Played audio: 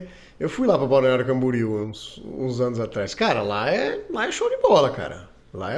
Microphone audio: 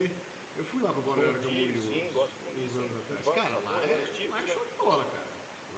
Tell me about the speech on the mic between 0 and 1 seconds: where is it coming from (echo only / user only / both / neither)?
echo only